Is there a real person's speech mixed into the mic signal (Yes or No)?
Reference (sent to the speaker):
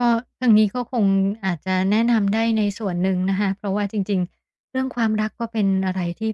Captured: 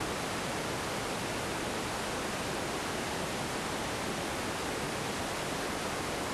No